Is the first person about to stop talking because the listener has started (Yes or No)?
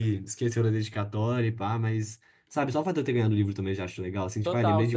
Yes